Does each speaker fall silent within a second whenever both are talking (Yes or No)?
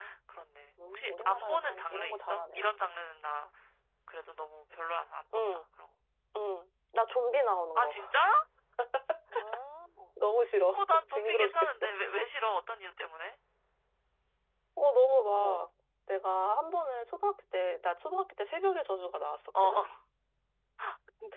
No